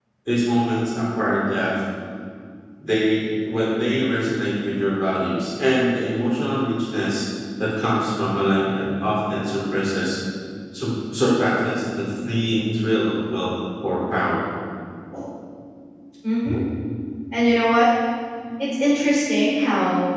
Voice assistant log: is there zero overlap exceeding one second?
Yes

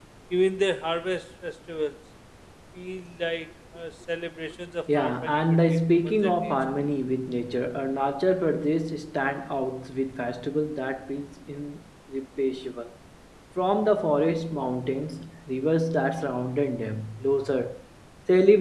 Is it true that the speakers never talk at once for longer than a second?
No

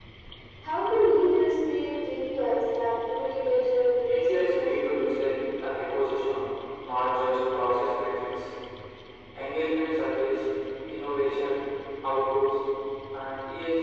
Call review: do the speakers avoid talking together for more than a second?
No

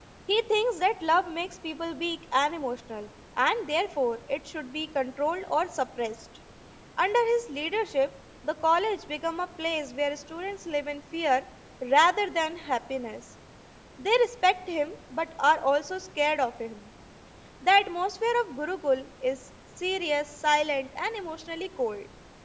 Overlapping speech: No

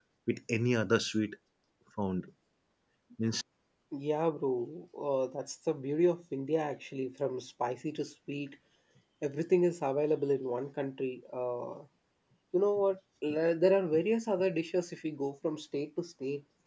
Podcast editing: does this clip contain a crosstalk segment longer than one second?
No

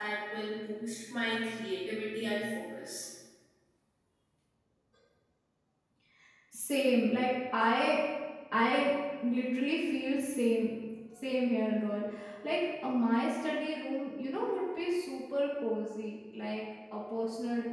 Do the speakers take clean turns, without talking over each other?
Yes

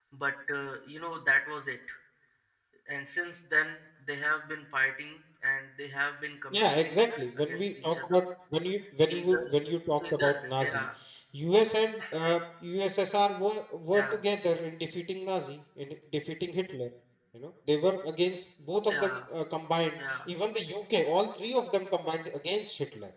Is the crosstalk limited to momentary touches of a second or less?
No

